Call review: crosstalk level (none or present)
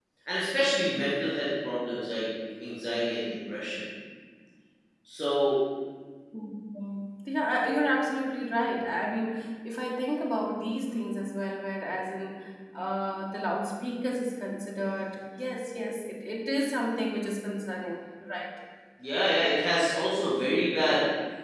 none